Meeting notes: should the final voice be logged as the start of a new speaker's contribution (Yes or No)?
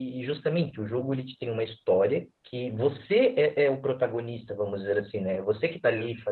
No